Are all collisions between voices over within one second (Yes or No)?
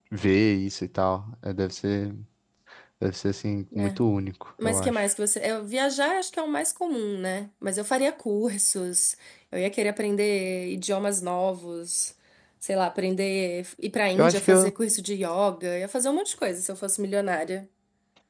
Yes